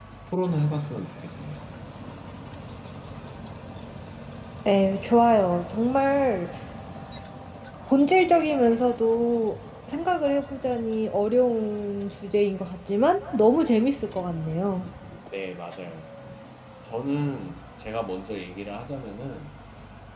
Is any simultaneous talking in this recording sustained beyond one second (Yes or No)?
No